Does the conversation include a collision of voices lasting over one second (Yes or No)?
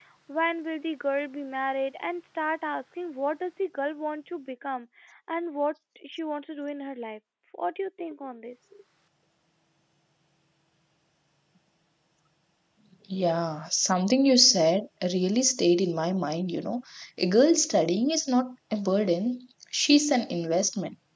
No